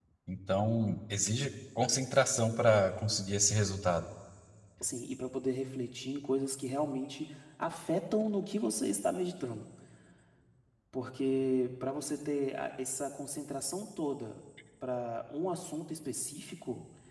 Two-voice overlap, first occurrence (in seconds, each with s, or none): none